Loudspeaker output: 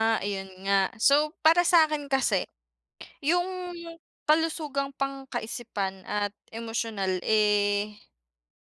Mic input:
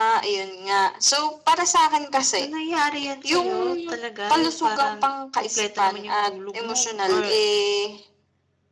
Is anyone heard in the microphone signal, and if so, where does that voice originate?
both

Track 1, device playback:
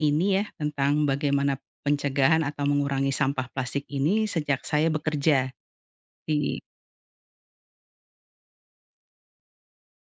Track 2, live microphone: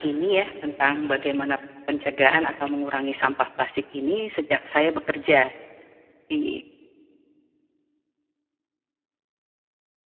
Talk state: echo only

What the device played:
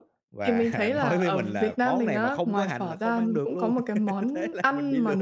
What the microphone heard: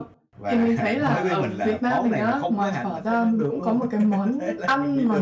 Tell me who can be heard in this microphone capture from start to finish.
echo only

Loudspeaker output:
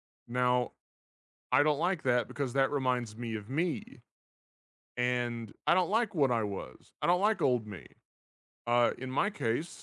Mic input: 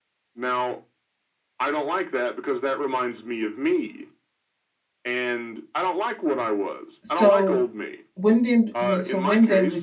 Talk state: both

